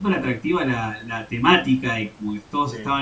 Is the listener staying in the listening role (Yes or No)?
Yes